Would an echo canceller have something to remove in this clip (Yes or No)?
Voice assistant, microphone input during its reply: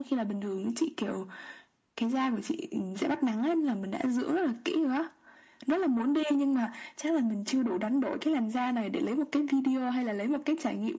Yes